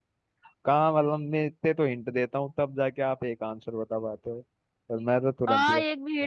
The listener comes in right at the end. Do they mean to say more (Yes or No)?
Yes